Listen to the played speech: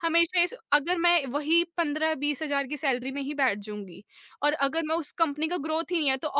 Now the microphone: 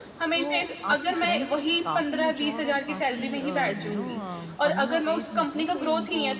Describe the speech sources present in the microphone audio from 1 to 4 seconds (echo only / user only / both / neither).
both